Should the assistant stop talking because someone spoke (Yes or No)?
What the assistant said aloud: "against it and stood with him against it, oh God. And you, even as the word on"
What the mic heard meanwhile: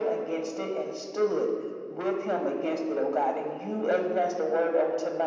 No